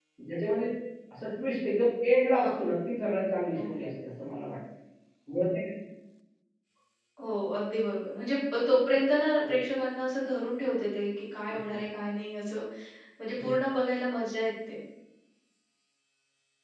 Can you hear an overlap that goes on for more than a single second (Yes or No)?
No